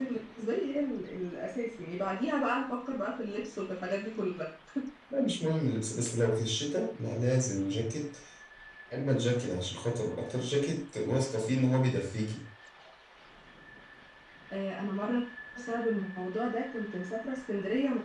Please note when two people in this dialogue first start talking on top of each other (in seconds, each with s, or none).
none